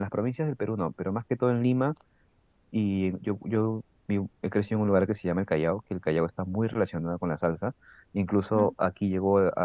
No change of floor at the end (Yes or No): Yes